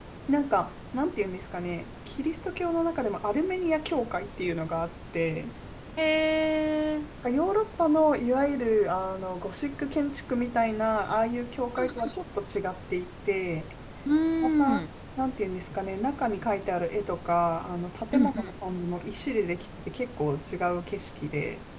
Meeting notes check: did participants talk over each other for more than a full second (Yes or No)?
No